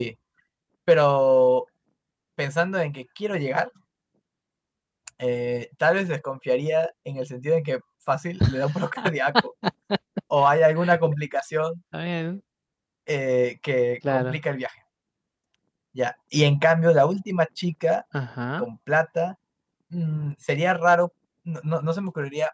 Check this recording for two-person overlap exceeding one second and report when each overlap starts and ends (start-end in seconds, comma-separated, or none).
none